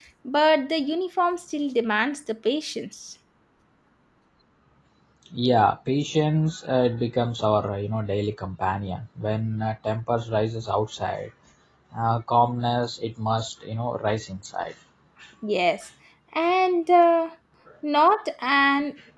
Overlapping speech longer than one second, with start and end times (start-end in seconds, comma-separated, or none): none